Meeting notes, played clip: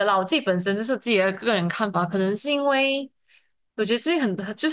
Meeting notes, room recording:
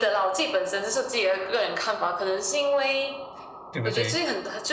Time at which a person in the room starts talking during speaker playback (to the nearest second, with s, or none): 4 s